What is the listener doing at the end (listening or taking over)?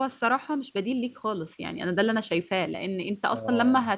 listening